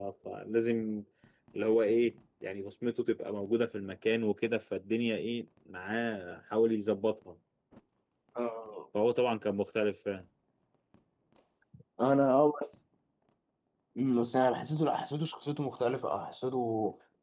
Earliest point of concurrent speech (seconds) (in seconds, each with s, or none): none